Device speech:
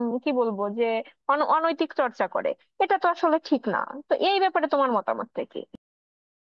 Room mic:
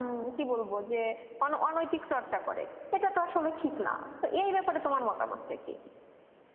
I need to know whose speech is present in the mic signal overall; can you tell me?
echo only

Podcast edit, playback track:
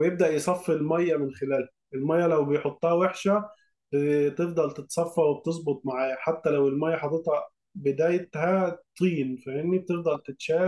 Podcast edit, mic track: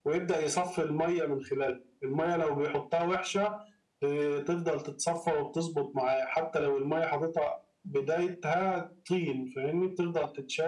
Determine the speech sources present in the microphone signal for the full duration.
echo only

